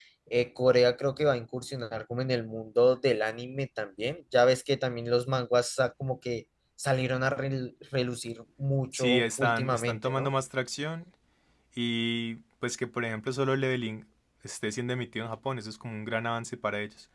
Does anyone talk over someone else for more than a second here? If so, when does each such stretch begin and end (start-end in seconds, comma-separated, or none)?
8.9-10.3